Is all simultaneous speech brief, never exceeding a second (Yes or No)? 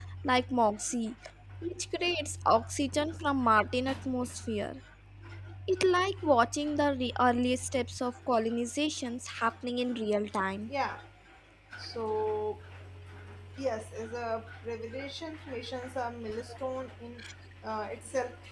Yes